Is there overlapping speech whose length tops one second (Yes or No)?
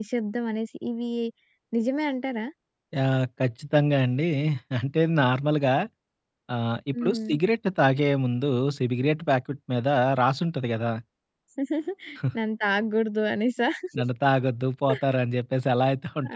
No